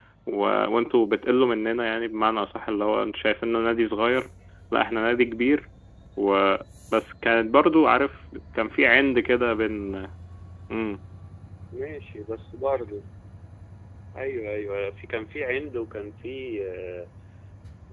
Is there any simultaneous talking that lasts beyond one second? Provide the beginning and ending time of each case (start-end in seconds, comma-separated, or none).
none